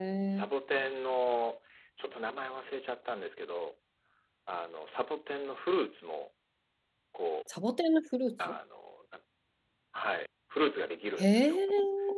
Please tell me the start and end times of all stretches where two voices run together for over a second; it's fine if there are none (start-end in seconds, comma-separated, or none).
none